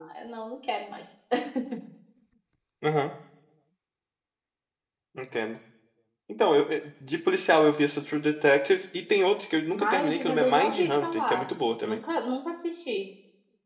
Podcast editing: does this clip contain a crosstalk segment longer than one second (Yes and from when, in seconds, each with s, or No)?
Yes, from 9.7 s